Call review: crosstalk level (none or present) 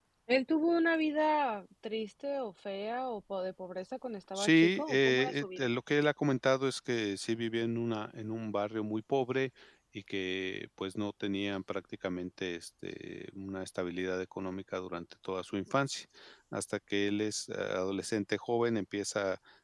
present